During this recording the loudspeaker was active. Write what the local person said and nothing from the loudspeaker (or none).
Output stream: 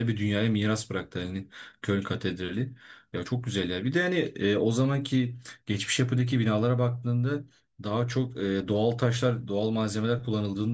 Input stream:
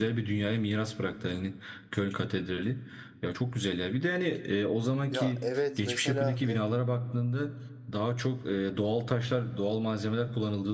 Ya evet mesela